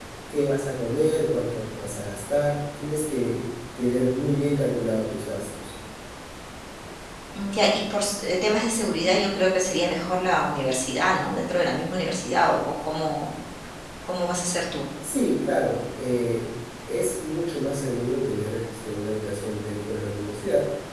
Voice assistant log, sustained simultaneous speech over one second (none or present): none